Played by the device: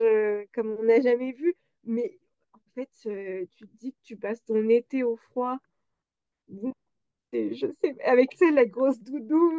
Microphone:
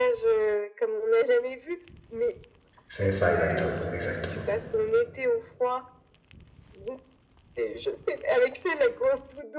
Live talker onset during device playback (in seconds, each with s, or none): 2.9 s